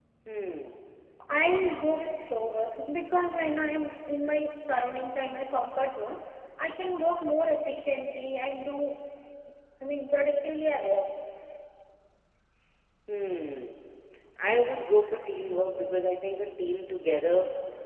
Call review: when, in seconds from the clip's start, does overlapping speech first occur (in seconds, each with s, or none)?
none